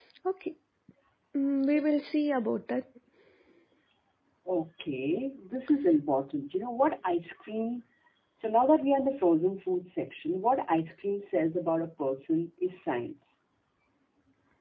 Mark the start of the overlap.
none

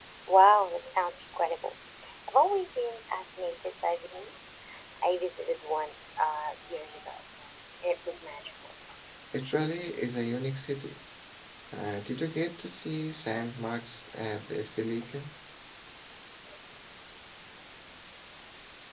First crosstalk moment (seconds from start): none

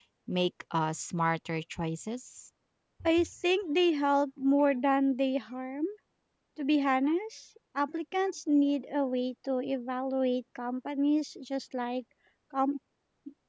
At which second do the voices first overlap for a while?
none

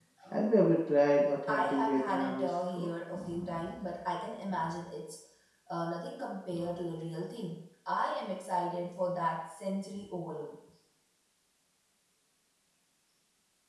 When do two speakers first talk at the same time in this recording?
1.5 s

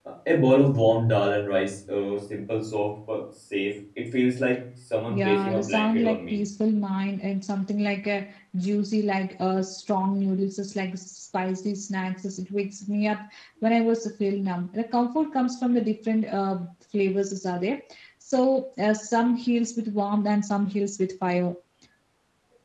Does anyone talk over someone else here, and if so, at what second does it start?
5.1 s

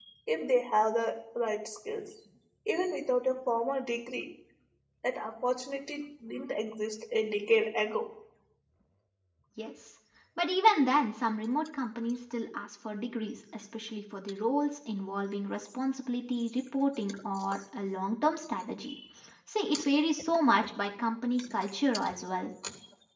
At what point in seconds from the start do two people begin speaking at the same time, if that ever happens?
none

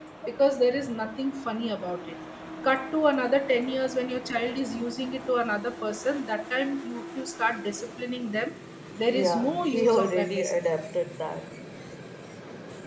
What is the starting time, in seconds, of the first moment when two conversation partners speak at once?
9.1 s

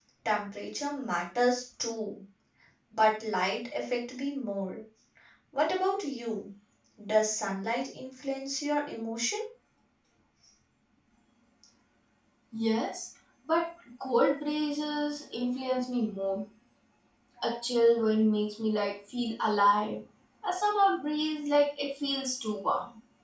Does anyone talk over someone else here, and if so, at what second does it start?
none

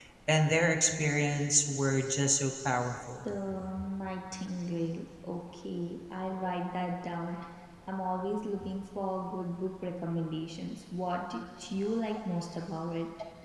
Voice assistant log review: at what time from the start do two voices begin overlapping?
none

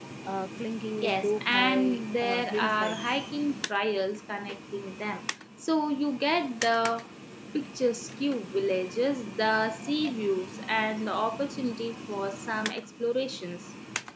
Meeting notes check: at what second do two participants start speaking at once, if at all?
1.0 s

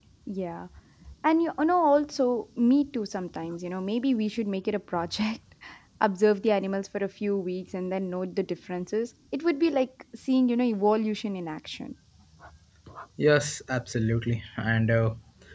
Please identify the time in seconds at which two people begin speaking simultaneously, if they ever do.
none

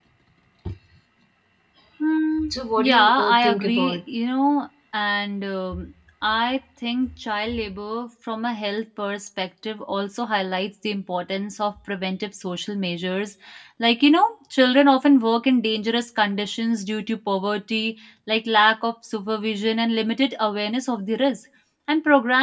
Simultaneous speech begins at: 2.5 s

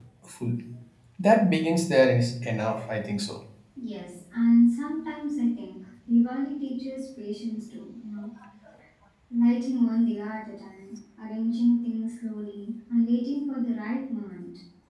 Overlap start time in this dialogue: none

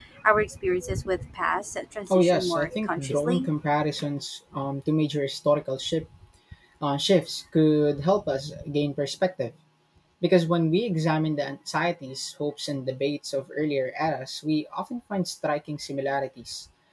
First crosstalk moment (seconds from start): 2.1 s

